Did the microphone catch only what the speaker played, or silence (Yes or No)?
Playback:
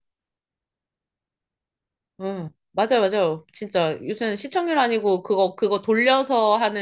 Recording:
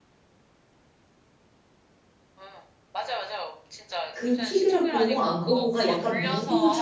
No